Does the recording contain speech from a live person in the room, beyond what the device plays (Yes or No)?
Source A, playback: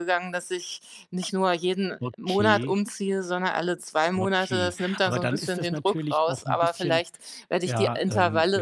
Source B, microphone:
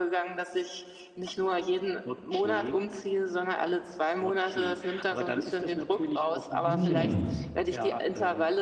Yes